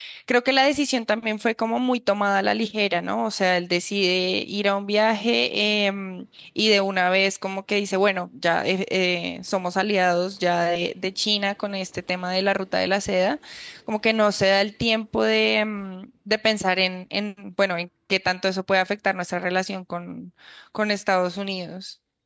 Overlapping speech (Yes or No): No